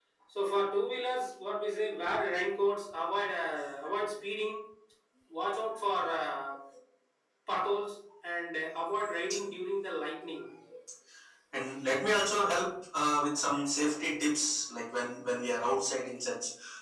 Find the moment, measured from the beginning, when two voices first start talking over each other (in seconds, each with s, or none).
none